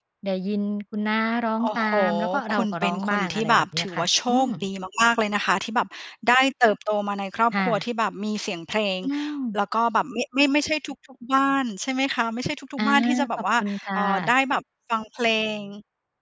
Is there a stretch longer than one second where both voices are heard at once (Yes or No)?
Yes